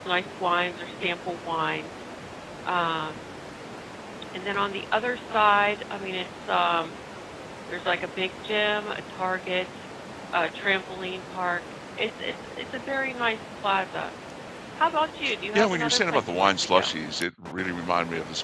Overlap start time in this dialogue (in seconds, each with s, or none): 15.6 s